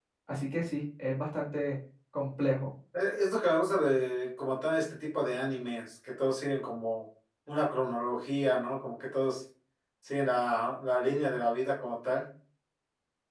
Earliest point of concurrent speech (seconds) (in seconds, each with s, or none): none